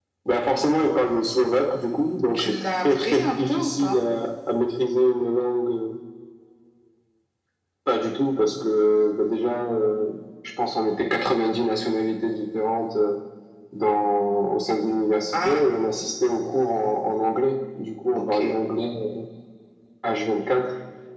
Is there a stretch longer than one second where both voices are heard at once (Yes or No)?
Yes